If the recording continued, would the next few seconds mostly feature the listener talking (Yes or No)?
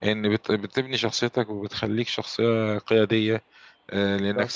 No